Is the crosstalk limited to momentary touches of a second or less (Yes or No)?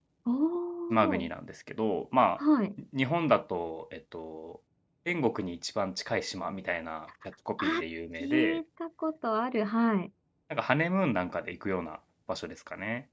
Yes